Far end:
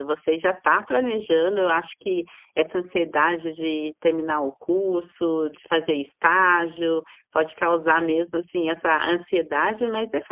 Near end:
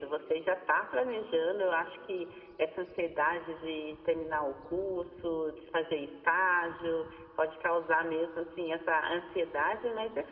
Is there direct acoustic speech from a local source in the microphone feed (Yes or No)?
No